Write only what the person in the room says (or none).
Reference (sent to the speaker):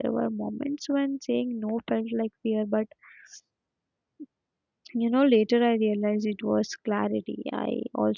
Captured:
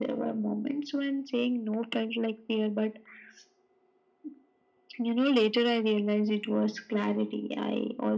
none